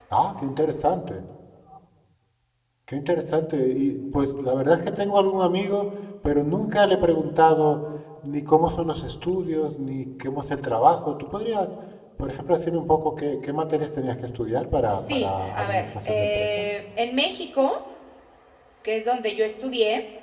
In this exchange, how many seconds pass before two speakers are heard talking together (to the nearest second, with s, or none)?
15 s